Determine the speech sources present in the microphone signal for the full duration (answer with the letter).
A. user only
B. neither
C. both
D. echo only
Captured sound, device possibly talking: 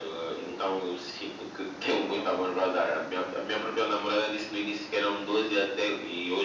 D